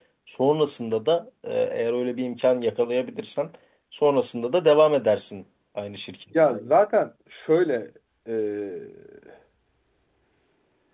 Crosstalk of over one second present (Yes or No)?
No